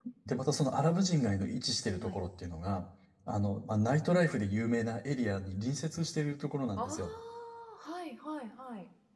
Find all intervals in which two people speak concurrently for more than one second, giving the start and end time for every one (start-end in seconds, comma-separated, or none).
none